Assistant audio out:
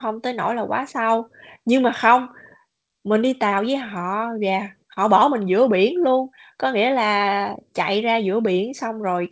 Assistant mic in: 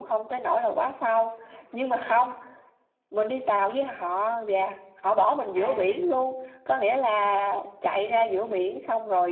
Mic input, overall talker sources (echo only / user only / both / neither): both